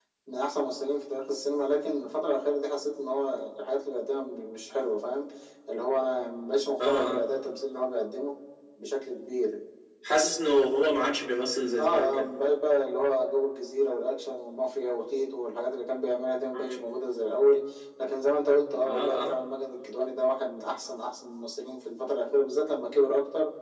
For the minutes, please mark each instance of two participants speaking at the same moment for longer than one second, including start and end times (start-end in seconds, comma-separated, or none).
none